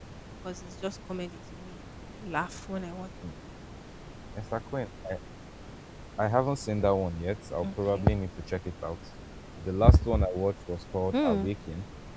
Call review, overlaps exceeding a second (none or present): none